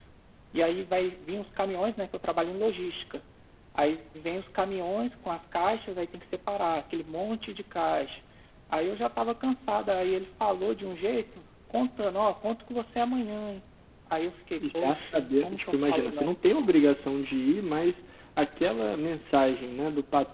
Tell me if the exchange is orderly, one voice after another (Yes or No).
No